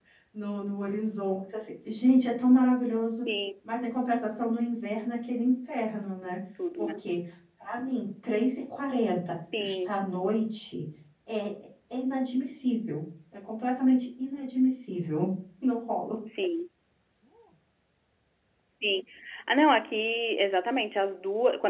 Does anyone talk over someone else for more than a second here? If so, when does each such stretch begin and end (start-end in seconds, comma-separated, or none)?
none